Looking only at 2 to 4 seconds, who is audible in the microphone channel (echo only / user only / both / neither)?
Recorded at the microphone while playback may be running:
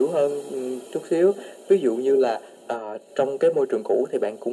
echo only